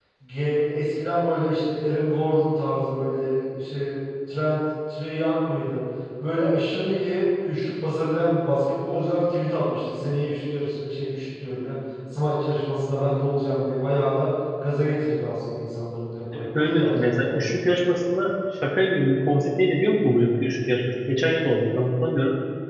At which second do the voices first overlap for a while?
16.3 s

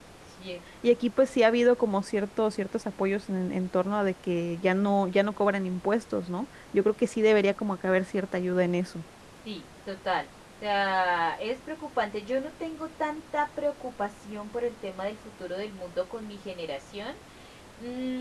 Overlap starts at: none

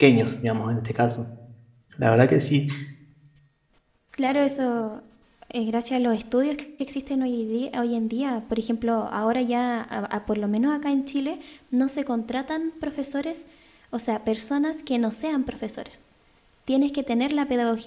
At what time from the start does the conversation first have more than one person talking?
none

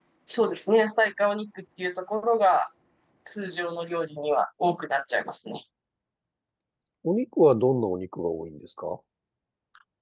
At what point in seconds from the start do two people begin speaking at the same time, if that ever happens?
none

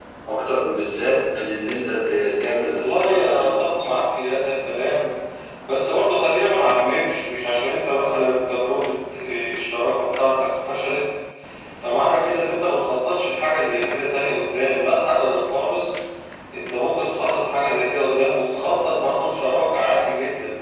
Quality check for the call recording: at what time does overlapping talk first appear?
2.7 s

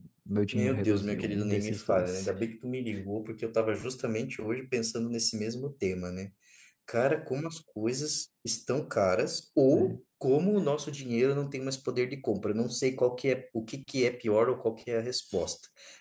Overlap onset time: 0.5 s

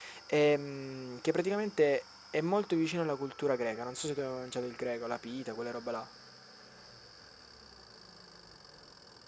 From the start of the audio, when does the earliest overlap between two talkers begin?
none

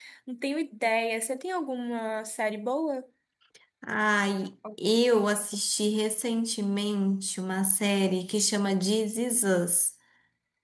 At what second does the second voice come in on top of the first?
none

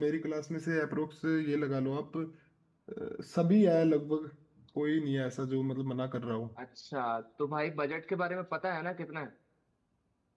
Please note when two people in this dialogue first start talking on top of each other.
none

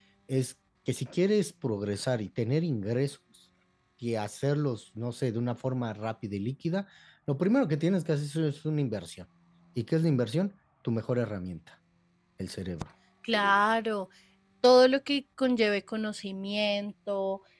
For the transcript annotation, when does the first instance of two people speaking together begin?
none

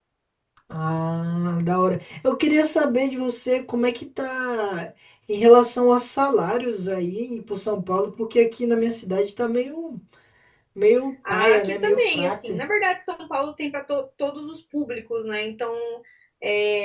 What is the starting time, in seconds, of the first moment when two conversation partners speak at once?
11.3 s

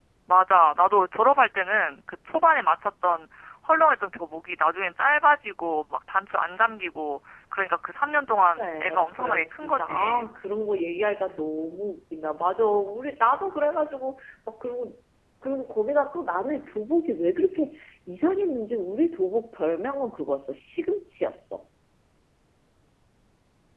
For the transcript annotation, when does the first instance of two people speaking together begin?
8.6 s

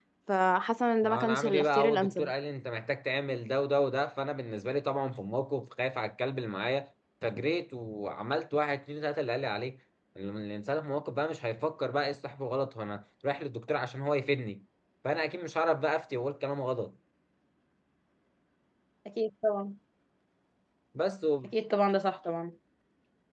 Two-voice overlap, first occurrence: 1.0 s

